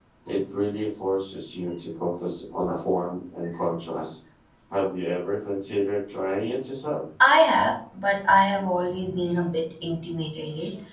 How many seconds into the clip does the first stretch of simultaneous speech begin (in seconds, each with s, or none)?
none